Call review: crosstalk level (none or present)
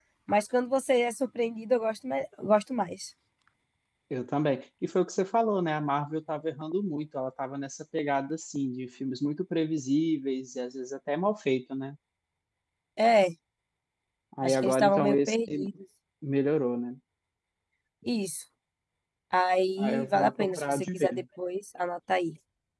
present